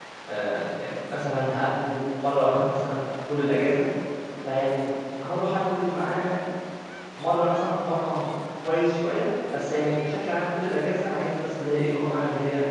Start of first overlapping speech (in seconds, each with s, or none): none